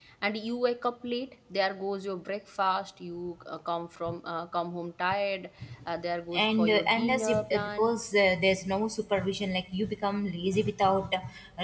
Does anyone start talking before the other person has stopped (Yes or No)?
Yes